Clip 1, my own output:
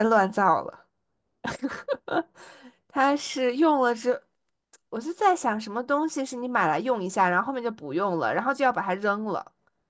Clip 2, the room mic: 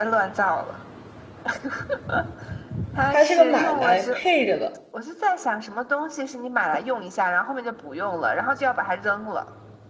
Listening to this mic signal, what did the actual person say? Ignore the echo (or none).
它是个买来配着的。